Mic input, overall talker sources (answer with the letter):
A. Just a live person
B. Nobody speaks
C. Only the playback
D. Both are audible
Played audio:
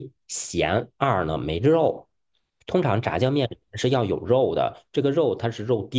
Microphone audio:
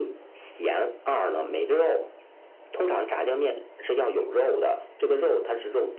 C